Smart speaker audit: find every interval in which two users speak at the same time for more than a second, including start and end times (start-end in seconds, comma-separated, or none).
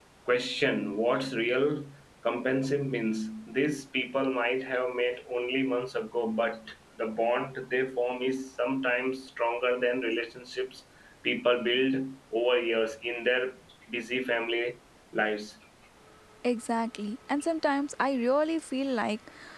none